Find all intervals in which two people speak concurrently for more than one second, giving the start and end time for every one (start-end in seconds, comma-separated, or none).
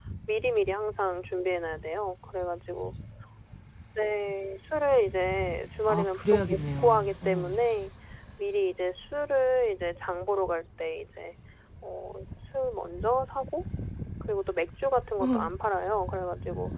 5.9-7.5